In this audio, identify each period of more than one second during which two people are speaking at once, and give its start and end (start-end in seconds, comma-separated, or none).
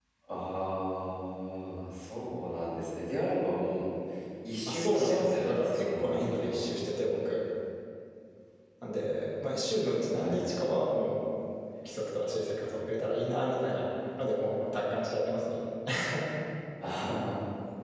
4.7-6.6